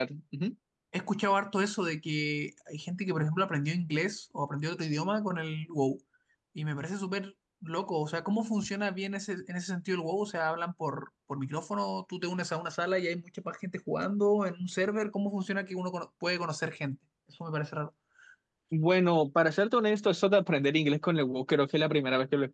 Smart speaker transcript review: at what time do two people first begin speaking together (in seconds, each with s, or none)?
none